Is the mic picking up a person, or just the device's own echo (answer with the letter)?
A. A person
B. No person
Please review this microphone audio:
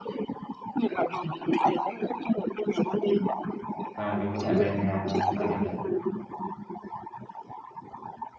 A